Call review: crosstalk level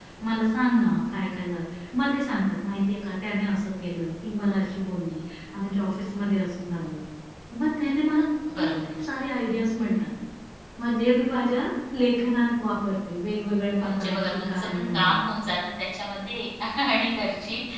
present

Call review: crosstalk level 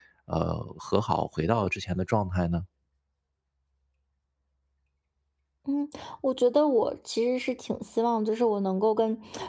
none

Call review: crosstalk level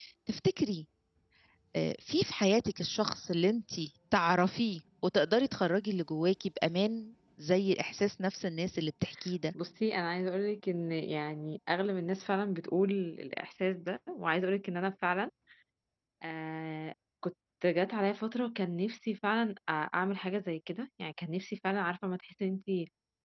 none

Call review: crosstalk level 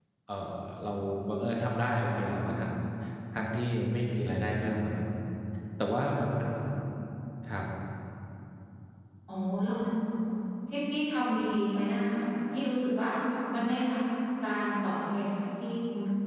none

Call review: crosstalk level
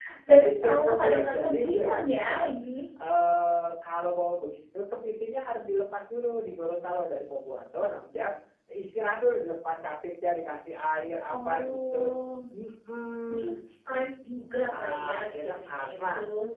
present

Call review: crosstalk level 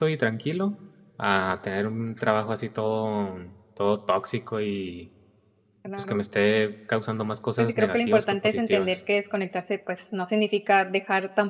present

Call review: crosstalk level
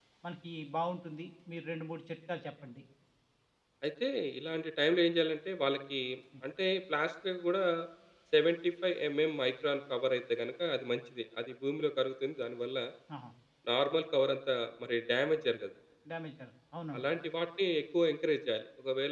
none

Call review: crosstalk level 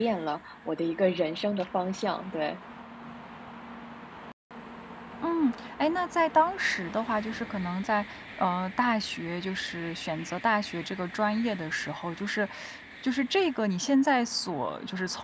none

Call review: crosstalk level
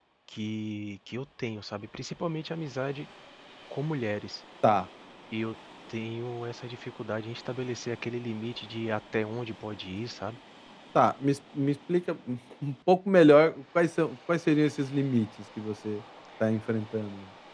none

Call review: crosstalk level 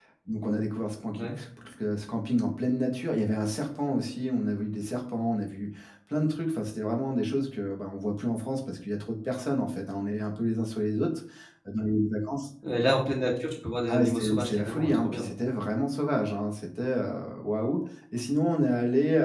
present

